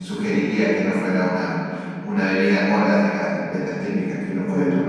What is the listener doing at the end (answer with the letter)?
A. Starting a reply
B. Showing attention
A